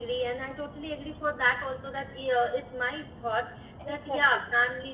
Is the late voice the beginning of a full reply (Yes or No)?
No